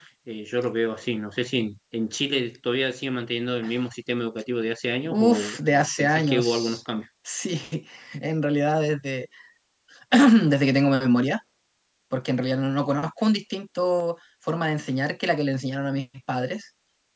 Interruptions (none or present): present